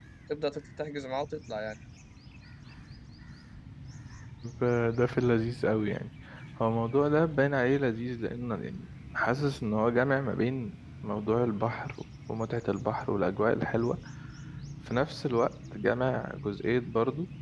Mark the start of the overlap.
none

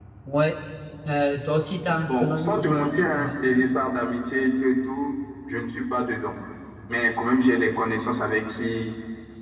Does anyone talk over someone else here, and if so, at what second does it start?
2 s

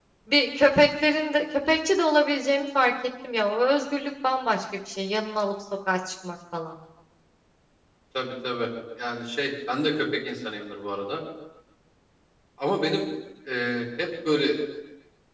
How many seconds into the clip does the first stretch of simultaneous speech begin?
none

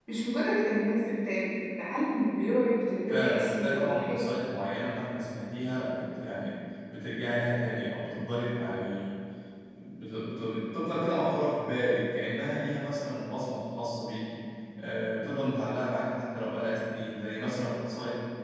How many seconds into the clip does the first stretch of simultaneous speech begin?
3 s

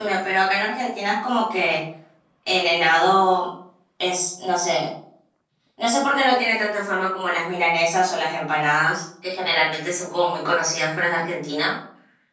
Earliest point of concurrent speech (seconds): none

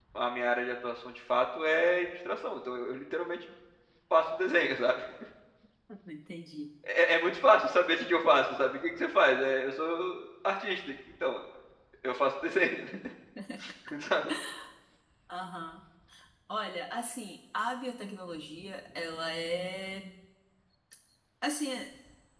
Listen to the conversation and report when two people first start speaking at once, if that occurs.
none

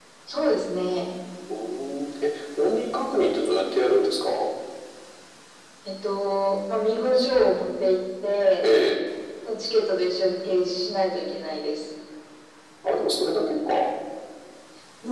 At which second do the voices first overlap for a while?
none

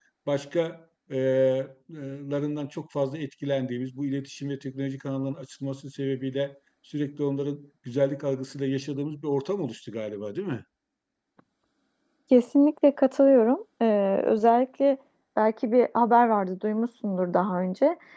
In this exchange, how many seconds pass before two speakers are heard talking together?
none

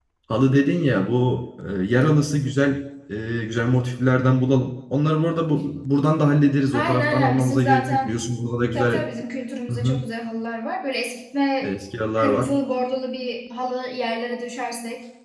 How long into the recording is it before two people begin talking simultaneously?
7 s

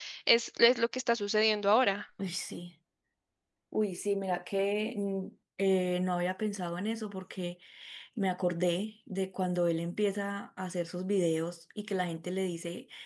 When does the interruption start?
none

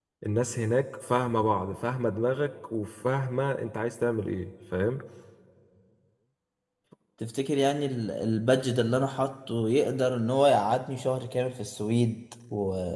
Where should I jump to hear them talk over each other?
none

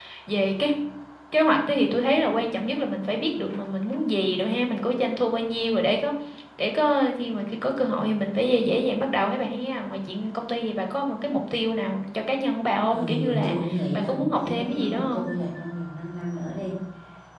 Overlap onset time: 13 s

